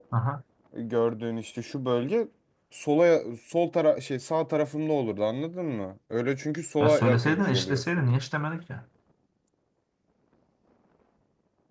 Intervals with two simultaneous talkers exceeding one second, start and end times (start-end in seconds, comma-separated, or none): 6.8-8.0